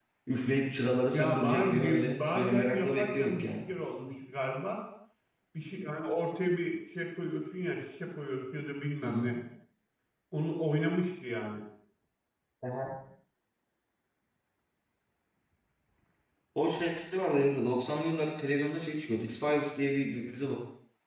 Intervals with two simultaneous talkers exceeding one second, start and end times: 1.1-3.5

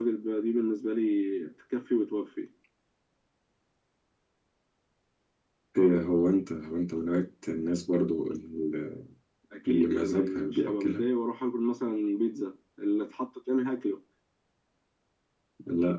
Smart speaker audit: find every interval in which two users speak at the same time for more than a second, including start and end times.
9.7-11.1

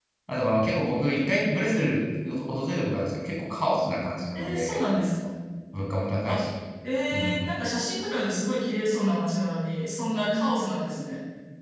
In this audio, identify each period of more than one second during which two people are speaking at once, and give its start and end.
none

